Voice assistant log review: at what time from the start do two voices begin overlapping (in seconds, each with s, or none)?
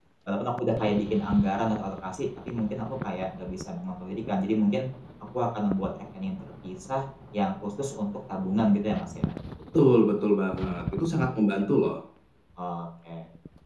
none